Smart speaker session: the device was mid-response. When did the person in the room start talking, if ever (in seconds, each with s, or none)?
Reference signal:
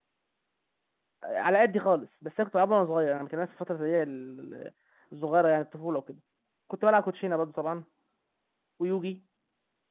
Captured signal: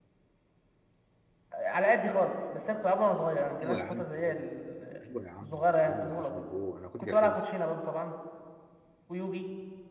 3.6 s